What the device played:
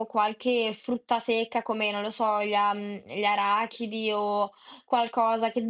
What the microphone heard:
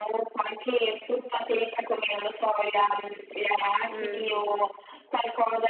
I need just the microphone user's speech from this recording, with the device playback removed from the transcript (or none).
Mh.